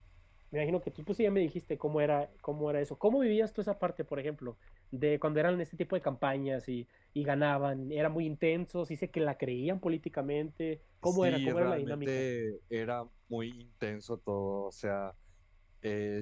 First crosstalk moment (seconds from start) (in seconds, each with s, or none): 11.0 s